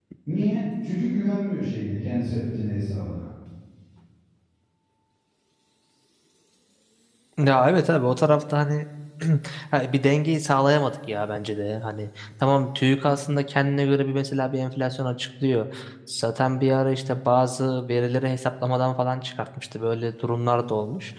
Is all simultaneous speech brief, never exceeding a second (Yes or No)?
Yes